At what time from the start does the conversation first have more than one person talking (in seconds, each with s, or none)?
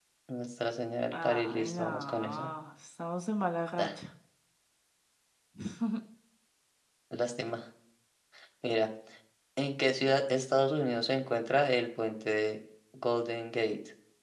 1.1 s